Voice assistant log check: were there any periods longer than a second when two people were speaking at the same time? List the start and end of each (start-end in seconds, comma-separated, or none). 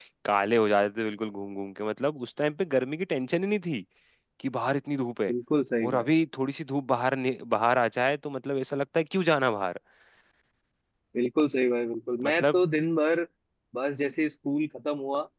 none